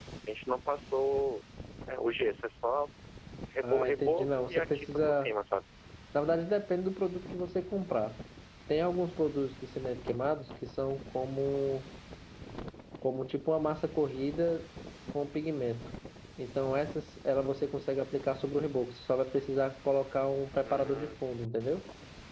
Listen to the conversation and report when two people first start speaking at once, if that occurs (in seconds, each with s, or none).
3.6 s